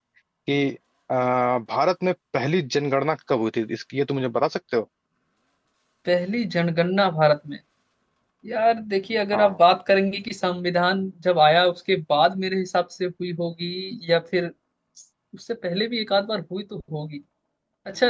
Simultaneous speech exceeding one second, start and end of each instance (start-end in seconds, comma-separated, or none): none